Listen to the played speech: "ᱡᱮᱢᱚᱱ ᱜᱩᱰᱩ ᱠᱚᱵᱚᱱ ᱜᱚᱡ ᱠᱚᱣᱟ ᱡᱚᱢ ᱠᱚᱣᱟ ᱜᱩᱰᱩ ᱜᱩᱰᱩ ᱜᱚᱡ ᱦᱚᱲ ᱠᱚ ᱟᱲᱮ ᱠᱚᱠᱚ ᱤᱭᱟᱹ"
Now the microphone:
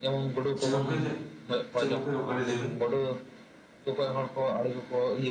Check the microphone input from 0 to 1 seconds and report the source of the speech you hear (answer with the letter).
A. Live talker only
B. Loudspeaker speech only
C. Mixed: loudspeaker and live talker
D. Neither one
C